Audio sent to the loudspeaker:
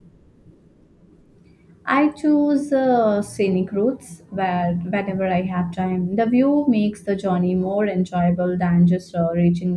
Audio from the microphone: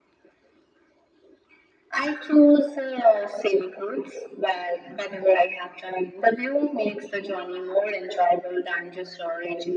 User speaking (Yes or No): No